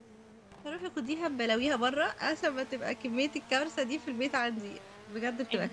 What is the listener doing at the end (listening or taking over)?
taking over